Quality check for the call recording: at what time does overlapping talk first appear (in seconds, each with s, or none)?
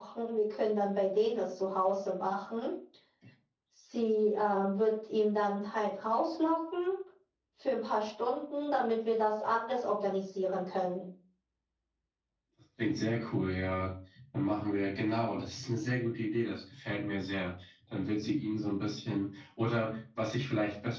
none